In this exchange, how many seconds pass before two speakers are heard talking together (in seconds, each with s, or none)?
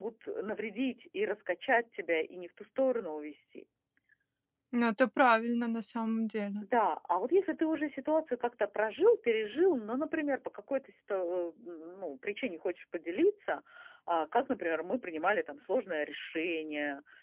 none